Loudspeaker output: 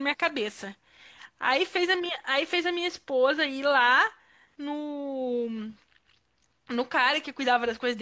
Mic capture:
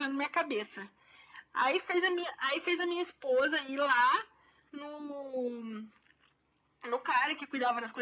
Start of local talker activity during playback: none

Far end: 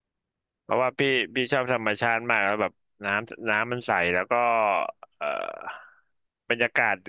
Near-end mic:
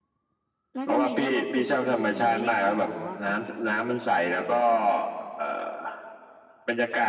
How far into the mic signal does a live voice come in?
1 s

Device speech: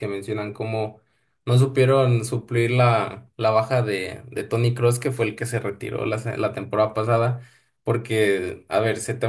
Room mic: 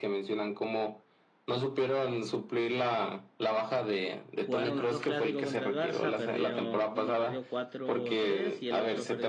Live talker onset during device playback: 4 s

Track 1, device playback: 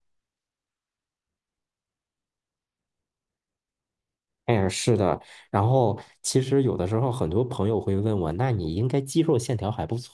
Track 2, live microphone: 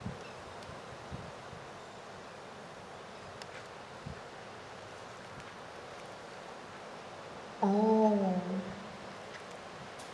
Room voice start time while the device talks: 8 s

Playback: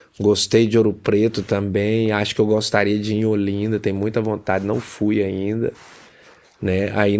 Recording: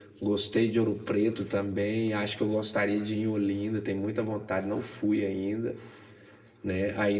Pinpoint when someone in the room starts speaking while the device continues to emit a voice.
none

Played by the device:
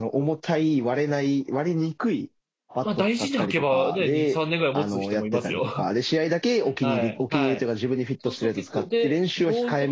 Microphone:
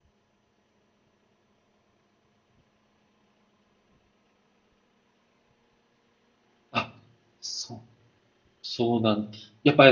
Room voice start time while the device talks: 7 s

